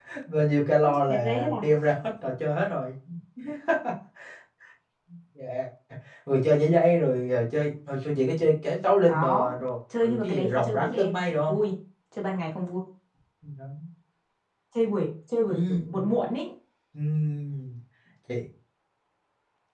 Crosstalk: present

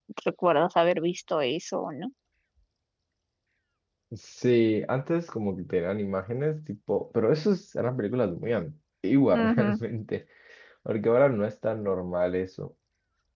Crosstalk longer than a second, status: none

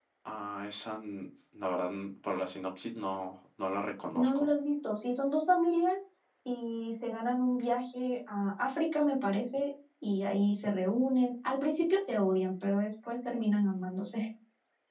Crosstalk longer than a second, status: none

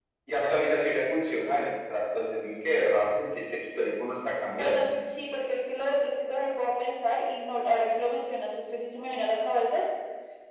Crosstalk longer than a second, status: none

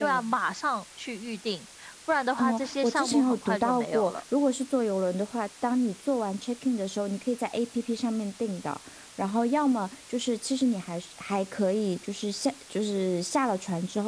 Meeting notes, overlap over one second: present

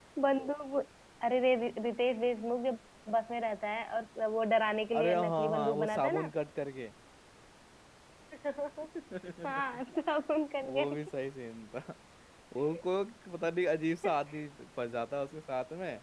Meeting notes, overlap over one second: present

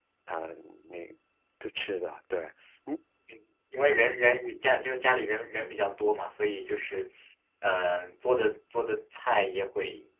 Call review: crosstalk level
none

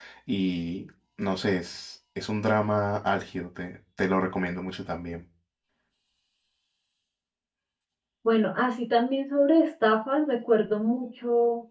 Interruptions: none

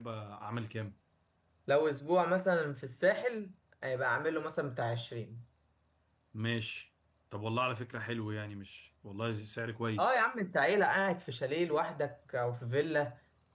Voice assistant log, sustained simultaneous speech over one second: none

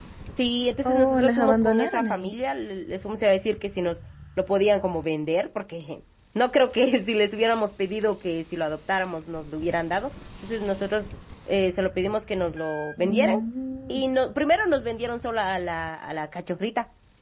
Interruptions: present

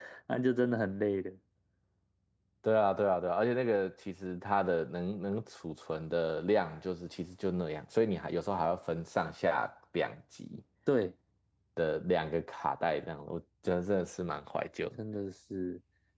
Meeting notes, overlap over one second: none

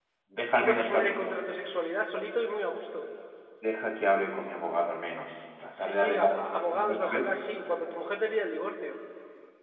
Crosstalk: present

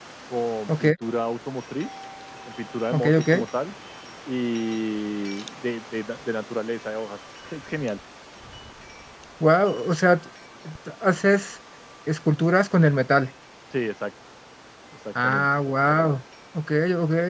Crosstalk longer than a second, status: none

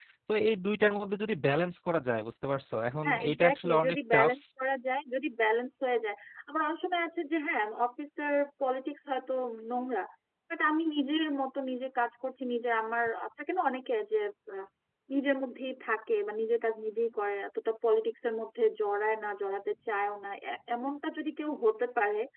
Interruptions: present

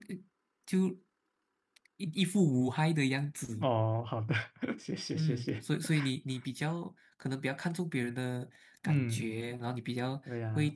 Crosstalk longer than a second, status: none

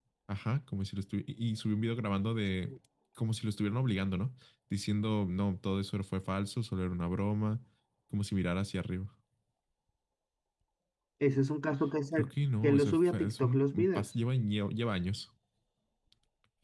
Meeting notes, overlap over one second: present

